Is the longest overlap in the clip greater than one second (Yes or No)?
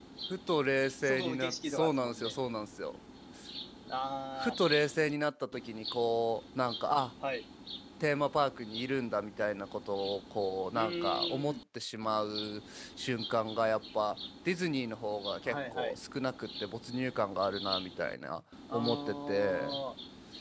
Yes